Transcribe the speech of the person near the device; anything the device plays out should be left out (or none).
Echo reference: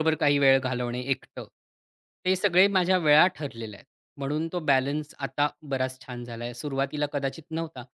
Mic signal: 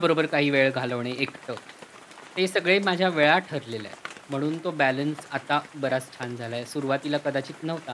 none